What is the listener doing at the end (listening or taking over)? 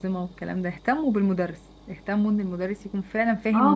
taking over